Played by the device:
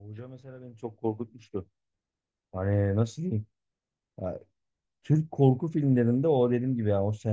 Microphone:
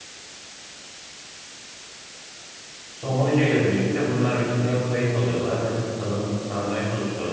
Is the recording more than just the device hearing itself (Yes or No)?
Yes